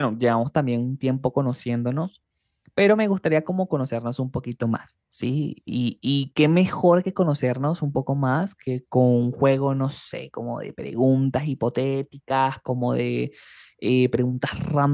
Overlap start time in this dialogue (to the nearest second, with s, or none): none